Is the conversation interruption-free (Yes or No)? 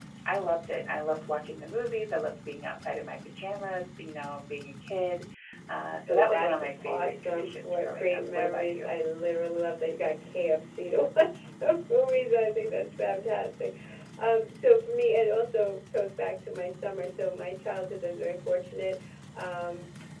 No